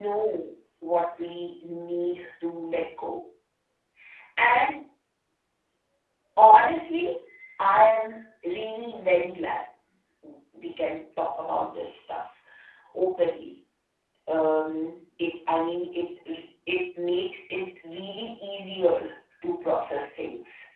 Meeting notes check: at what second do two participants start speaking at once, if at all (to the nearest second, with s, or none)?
none